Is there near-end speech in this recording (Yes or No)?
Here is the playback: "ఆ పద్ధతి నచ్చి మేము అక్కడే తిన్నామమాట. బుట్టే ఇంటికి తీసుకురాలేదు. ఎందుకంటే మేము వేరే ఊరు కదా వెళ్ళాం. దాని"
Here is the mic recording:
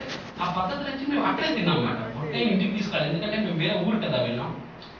Yes